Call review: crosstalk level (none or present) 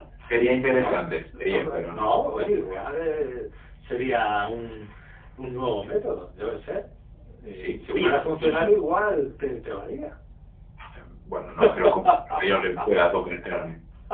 present